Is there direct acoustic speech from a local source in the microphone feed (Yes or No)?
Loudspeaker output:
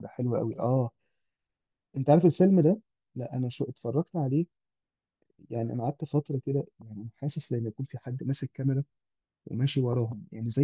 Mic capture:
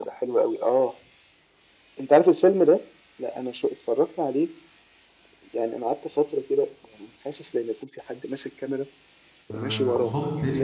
Yes